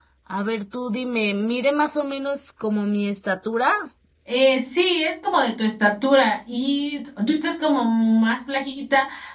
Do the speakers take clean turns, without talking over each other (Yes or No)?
Yes